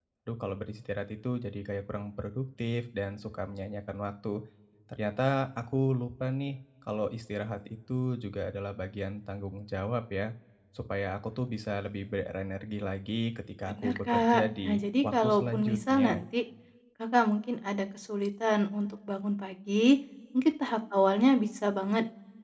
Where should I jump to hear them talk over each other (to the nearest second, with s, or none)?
14 s